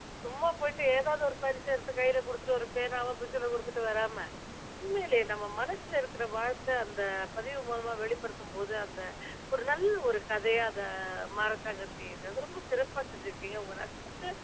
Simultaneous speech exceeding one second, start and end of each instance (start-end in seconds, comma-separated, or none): none